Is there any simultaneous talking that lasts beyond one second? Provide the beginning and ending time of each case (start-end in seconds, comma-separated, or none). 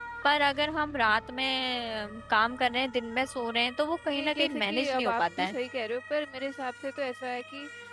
4.2-5.5